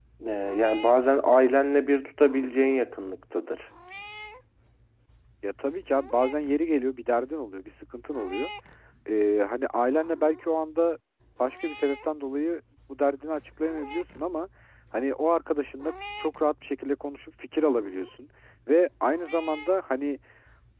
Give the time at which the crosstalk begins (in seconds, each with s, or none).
none